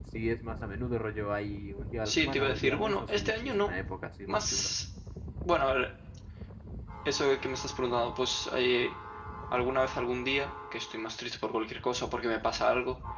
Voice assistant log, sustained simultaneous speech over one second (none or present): present